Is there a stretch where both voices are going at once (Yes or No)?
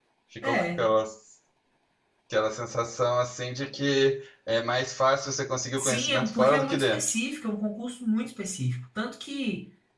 Yes